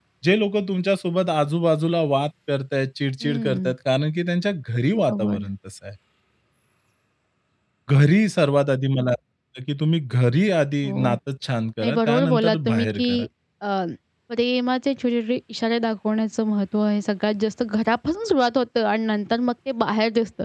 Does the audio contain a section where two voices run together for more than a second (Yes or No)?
Yes